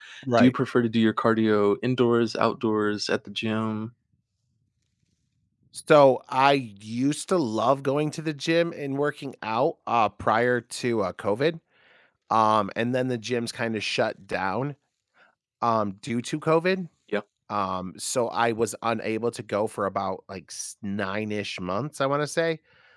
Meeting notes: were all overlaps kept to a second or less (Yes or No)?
Yes